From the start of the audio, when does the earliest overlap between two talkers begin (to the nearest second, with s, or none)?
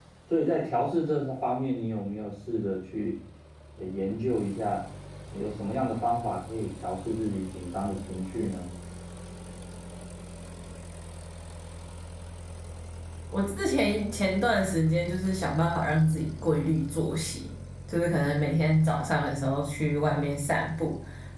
none